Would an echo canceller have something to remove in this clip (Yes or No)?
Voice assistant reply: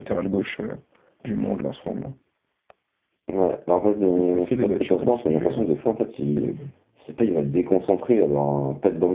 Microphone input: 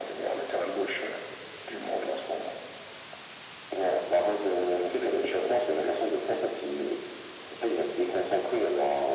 Yes